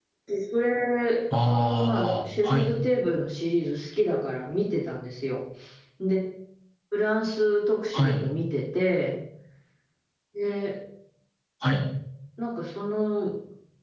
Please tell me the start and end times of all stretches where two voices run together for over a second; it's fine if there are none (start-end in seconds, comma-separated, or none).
1.5-2.7